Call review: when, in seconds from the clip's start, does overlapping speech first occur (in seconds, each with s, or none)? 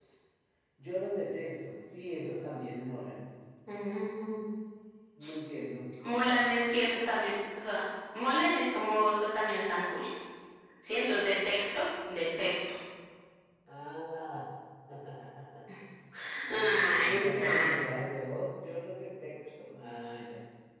16.5 s